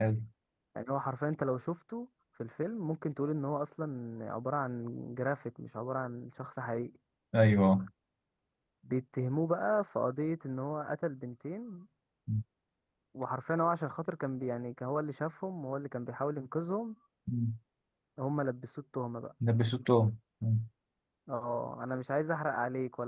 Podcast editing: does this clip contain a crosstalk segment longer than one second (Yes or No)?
No